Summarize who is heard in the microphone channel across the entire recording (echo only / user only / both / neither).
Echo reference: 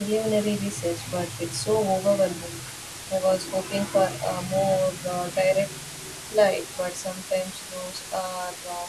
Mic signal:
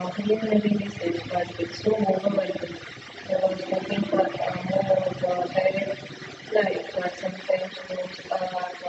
echo only